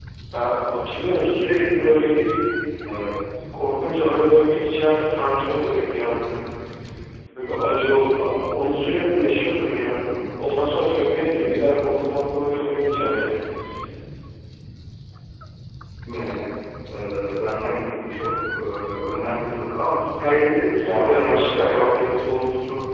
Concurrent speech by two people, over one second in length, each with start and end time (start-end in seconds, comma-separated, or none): 20.7-22.0